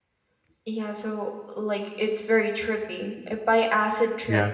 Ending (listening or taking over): listening